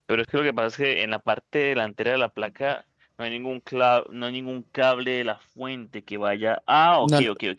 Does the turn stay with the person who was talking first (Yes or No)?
Yes